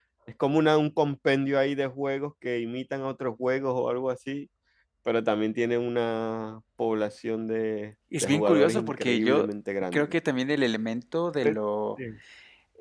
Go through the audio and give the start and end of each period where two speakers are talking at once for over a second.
8.2-9.5

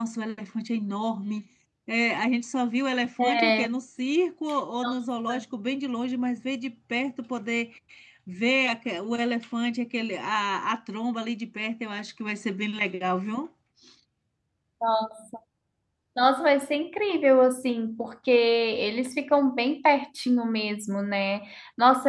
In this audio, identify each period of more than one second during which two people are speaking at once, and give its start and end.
none

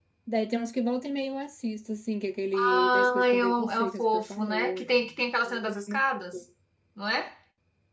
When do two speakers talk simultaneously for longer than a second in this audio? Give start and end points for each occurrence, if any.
2.5-4.9

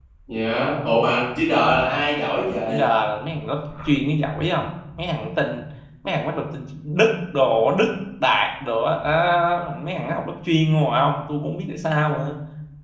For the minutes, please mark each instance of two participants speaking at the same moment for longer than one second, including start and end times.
none

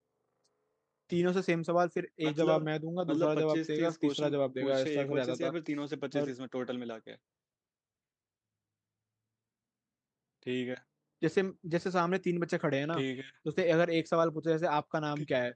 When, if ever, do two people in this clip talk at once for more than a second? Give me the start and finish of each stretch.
3.1-5.5

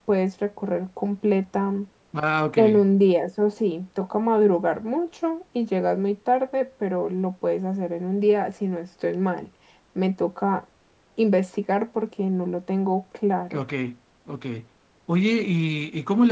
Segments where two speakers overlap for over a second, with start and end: none

